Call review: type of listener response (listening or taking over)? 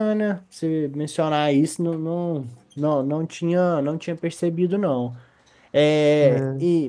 listening